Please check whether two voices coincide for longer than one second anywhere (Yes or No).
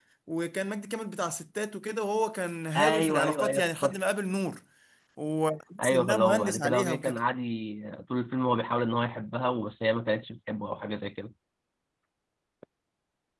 Yes